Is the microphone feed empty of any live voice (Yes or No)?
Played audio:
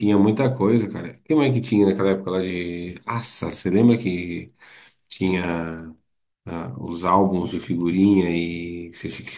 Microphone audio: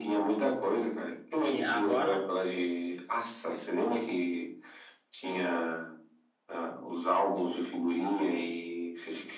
No